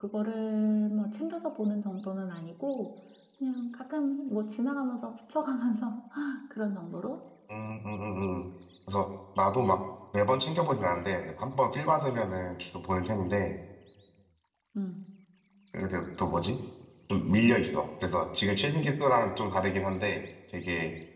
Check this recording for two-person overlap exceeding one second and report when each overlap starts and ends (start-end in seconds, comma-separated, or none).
none